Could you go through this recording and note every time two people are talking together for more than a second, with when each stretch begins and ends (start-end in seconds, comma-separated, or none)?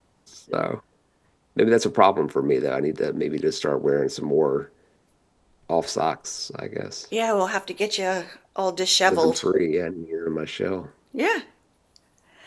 none